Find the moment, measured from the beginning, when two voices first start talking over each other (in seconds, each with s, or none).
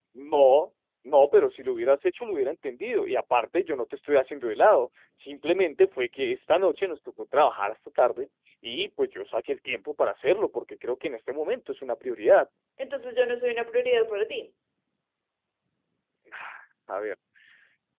none